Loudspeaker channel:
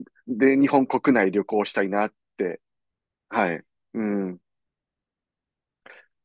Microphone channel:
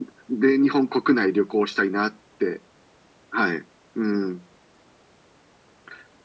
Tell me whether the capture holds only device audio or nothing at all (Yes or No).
Yes